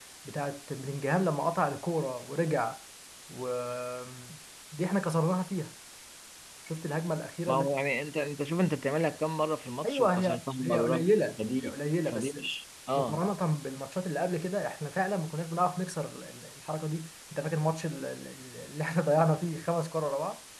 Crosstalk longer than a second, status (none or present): present